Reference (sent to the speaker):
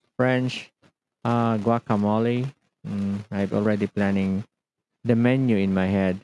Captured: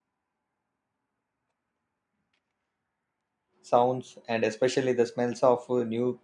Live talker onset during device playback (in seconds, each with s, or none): 3.6 s